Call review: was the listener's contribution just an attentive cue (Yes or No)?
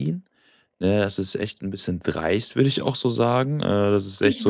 Yes